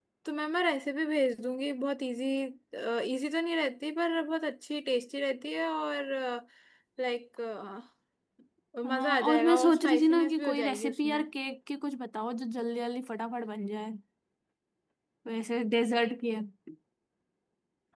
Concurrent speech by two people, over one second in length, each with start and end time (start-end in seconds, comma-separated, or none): 8.9-11.2